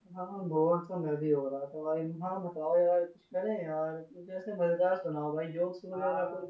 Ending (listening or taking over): taking over